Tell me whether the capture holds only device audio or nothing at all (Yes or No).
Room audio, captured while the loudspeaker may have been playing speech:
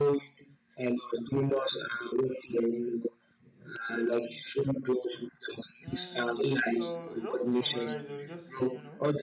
No